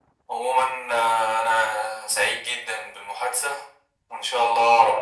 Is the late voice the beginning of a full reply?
No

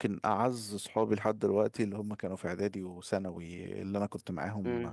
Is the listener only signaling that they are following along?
Yes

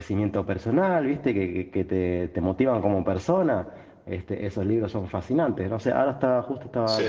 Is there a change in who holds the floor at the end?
No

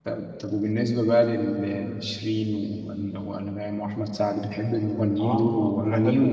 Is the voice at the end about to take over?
Yes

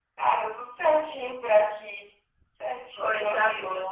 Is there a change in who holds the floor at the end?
Yes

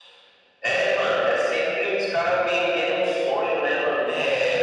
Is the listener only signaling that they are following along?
Yes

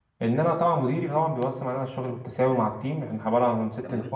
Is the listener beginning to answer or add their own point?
No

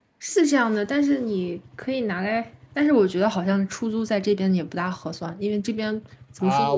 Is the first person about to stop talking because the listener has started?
Yes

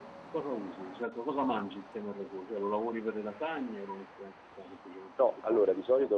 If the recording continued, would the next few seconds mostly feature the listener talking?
Yes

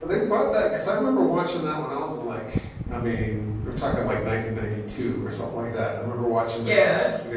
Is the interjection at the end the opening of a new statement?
No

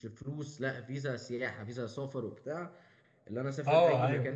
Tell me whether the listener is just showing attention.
Yes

